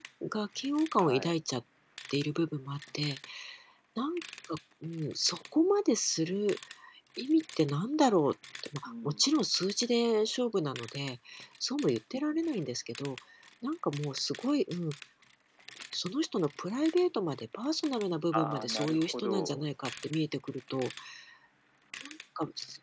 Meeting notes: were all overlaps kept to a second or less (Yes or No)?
No